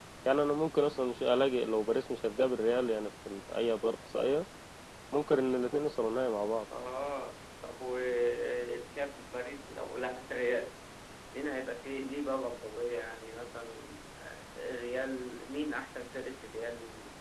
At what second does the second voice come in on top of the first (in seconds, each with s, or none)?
none